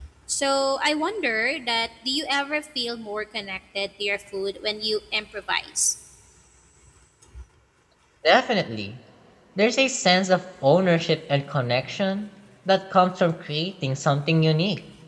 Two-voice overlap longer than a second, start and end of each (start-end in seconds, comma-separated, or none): none